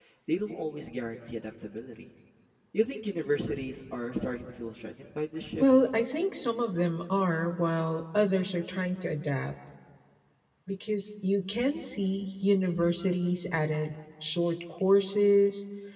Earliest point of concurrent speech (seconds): none

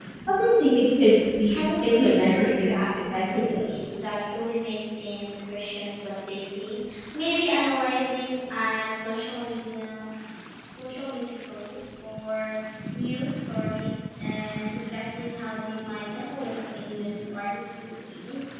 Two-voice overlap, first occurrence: 1 s

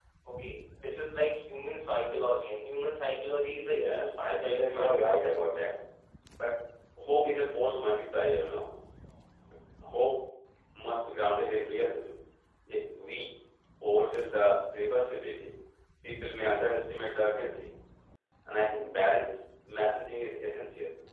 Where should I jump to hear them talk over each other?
4 s

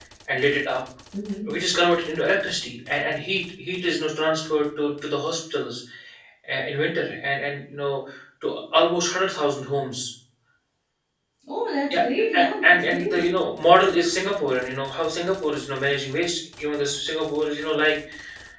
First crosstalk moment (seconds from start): 12 s

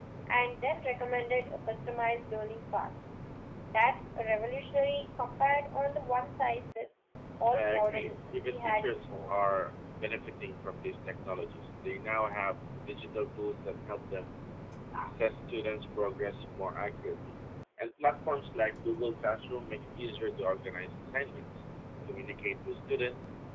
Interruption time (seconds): 8 s

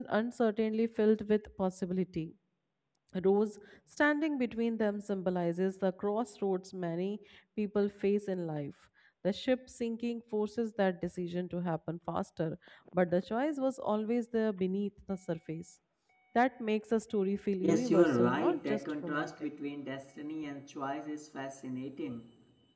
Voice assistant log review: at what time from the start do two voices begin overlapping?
18 s

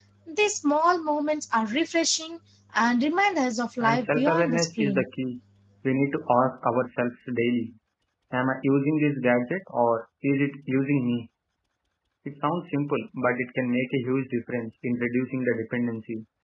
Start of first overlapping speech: 4 s

